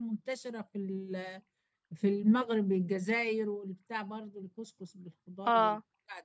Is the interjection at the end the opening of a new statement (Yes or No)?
No